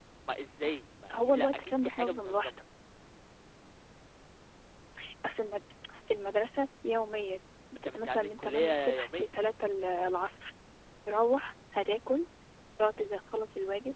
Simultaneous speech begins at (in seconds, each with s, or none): 1.1 s